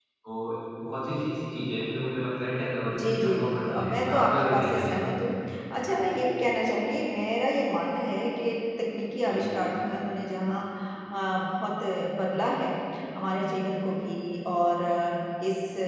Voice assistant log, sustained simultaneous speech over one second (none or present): present